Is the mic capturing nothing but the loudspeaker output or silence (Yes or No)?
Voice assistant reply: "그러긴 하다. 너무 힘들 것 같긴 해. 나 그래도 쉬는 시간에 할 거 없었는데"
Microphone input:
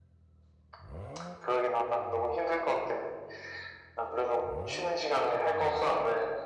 Yes